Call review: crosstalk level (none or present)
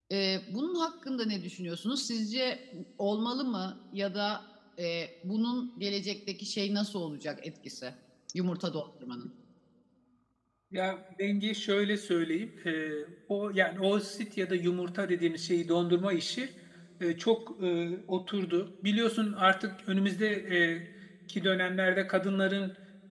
none